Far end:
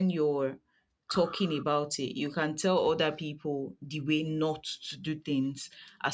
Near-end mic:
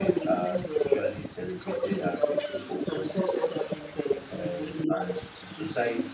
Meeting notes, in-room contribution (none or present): present